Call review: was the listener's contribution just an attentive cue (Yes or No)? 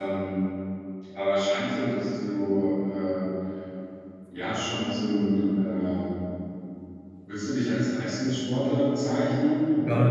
No